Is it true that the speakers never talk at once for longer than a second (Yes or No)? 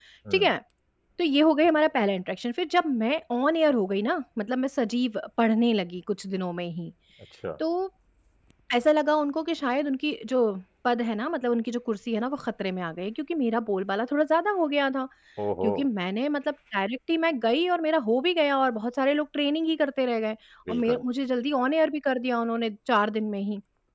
Yes